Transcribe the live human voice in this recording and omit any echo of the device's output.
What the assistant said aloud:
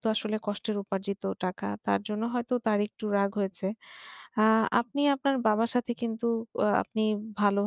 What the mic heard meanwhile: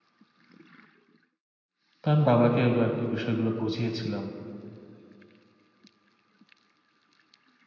তো আমি বাবাকে আরকি বিষয়গুলো বুঝিয়েছিলাম।

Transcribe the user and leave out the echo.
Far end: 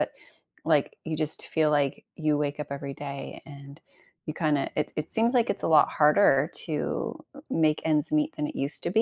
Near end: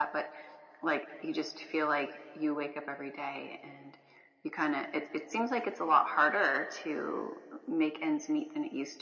none

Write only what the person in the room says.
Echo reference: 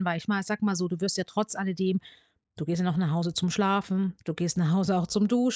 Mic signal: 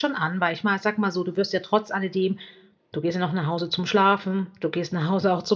none

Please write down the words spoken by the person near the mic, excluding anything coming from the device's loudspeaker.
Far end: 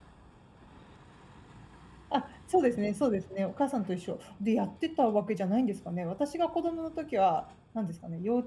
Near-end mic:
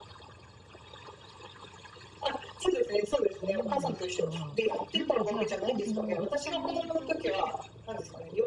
そうなんですか。なんかじゃあ、もうそのお子さんの影響で、

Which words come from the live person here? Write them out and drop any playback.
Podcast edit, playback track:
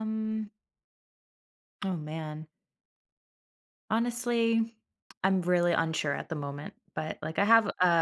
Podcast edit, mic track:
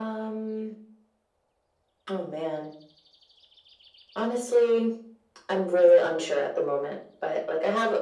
none

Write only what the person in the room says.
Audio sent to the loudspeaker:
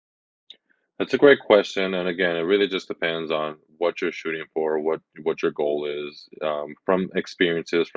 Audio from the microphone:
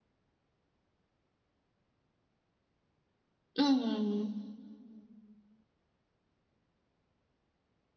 Mm,

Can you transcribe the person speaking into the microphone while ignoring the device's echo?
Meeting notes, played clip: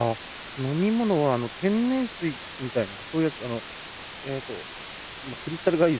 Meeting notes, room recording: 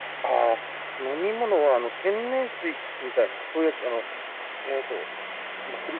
none

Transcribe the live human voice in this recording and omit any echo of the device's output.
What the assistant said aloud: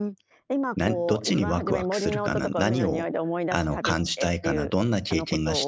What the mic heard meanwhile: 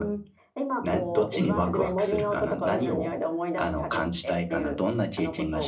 none

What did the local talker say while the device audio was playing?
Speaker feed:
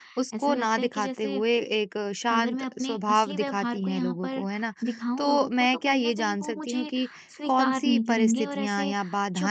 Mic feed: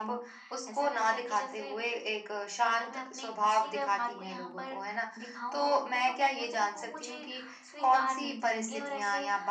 none

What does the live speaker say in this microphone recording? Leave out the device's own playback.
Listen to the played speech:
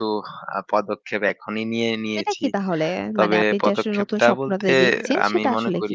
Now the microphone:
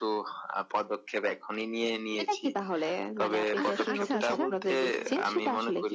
আহ, আচ্ছা, আচ্ছা।

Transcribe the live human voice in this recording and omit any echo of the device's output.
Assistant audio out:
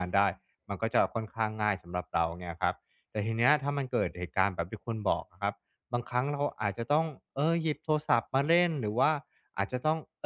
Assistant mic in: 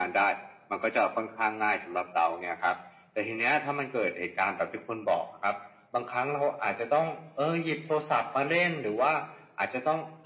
none

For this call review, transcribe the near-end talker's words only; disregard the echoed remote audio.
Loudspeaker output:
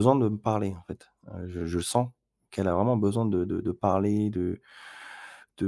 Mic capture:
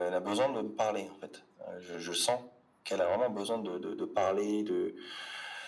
none

